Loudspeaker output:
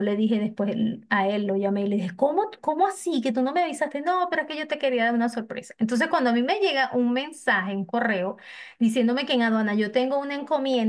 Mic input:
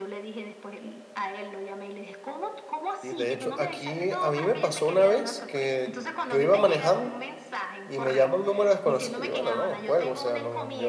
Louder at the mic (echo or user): user